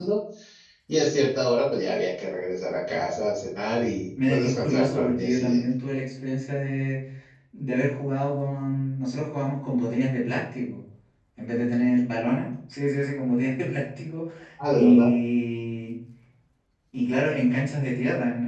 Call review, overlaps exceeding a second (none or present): present